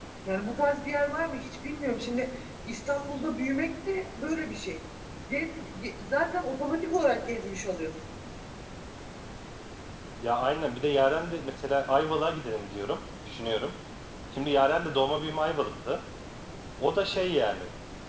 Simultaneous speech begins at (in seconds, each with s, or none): none